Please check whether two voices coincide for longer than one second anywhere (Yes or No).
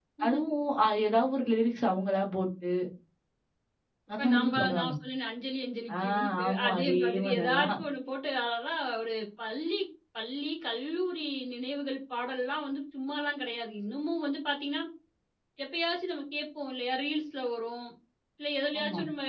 Yes